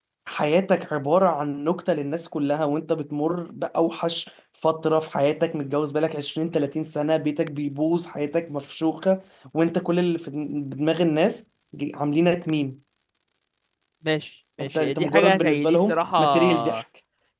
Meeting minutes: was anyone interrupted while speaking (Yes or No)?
Yes